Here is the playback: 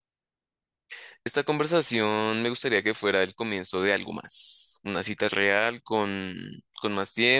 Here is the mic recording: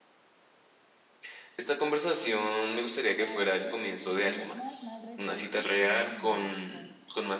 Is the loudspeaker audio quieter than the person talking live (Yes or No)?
No